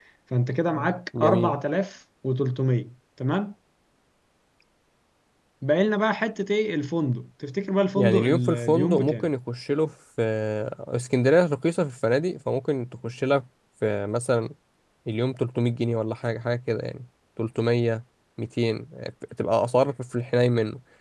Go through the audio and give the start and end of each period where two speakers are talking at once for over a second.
8.0-9.3

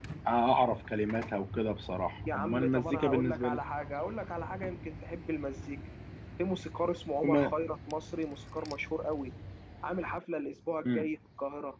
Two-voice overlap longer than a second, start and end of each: 2.3-3.6

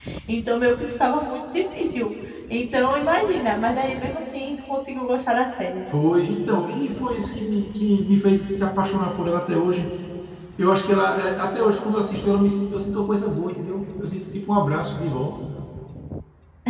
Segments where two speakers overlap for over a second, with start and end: none

